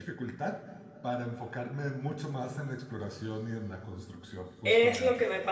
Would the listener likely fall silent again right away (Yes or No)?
No